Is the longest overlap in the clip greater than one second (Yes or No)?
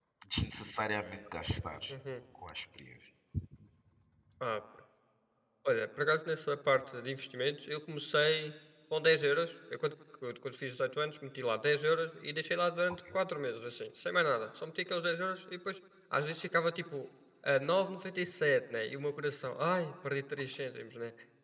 No